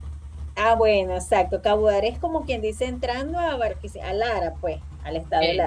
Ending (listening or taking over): listening